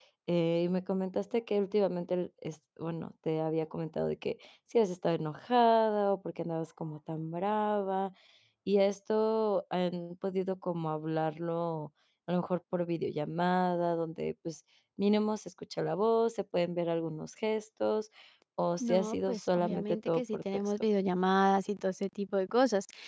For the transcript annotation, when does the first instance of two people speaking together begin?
18.8 s

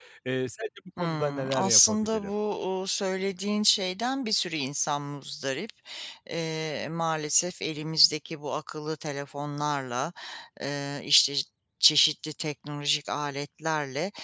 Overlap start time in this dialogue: 1.0 s

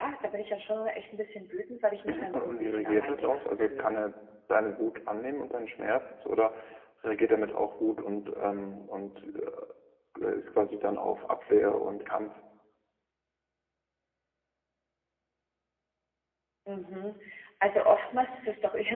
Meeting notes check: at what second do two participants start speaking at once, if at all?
2.1 s

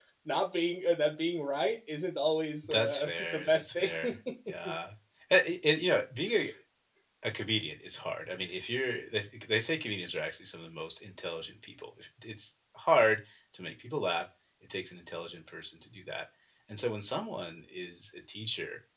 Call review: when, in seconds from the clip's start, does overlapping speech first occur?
2.6 s

